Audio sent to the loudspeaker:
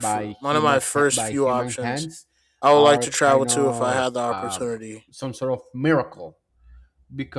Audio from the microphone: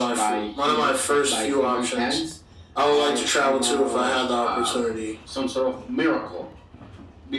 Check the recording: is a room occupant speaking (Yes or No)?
No